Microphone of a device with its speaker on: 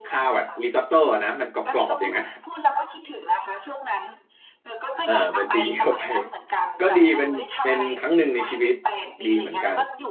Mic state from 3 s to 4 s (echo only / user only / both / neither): echo only